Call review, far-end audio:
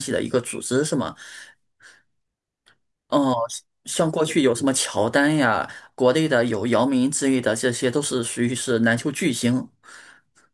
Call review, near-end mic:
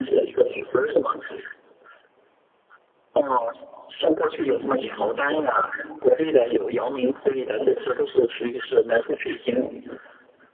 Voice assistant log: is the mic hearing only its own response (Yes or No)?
No